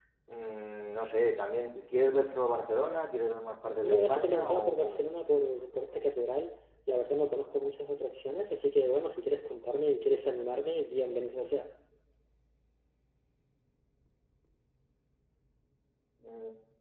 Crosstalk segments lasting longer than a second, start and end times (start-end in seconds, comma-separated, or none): 3.8-5.0